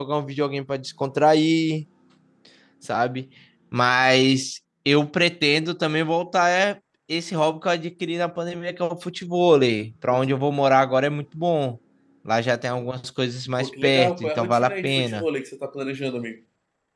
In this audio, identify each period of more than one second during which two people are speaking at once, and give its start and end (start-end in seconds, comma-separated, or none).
13.6-15.2